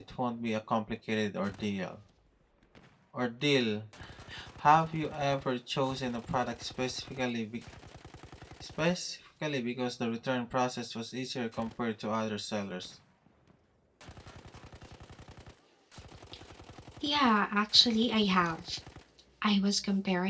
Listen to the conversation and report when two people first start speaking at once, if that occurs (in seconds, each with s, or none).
none